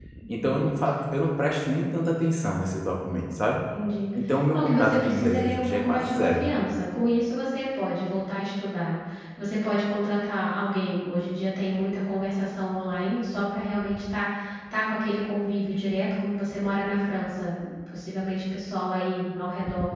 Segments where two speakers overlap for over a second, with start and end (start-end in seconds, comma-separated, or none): 4.5-6.5